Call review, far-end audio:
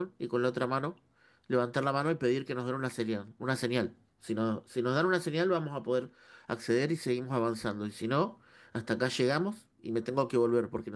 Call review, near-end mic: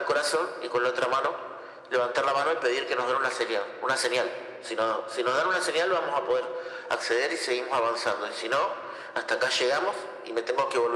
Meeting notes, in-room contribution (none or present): none